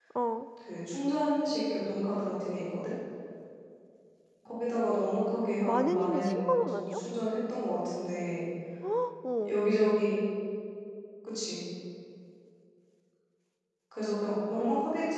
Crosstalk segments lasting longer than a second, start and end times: 5.7-7.0

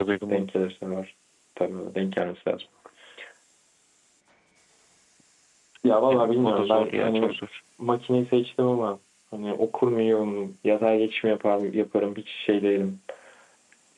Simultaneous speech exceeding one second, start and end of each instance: 6.1-7.3

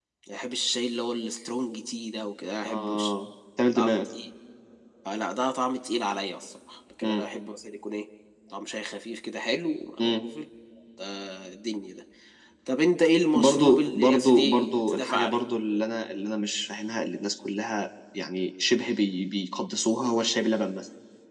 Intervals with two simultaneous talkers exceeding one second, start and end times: 13.3-15.4

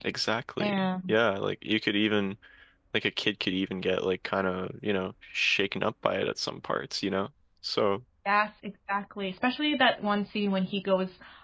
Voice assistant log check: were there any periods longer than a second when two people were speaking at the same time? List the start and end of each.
none

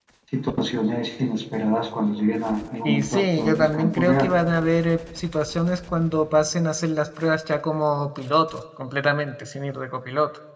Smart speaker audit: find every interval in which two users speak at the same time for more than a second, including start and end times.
2.9-4.3

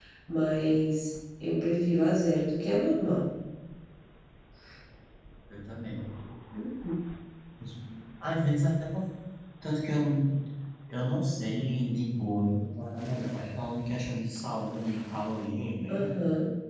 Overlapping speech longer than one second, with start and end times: none

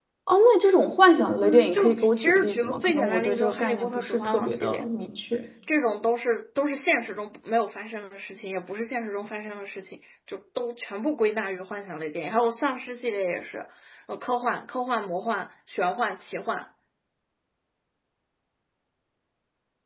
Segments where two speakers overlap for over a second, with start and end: 1.4-4.8

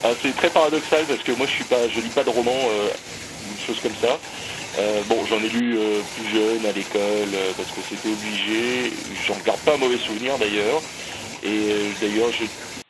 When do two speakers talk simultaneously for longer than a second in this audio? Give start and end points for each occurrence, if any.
none

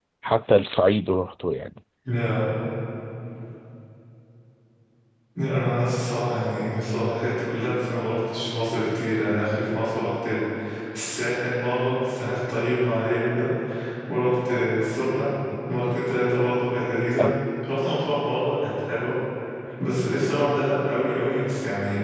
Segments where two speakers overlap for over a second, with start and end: none

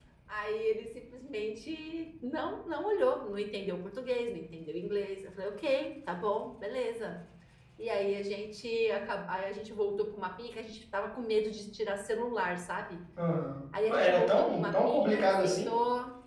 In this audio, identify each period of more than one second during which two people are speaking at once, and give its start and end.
13.9-15.7

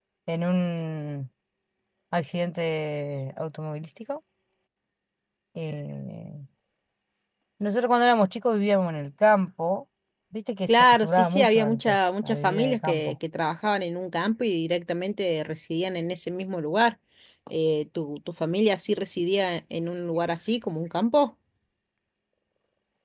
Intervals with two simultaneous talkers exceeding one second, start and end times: 10.7-13.2

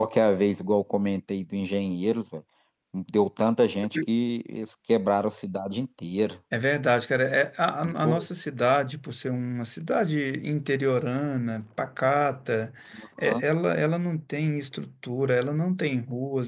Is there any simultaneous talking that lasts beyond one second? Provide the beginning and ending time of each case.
none

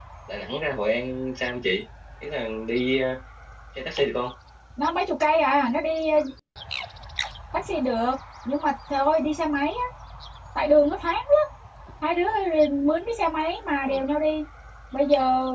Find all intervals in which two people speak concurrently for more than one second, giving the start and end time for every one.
none

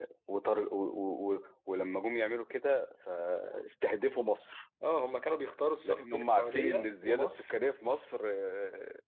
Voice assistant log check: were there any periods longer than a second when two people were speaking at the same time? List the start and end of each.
5.8-7.5

